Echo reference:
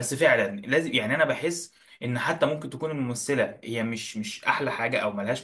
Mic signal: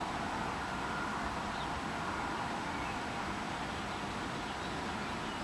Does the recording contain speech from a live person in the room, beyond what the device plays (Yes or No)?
No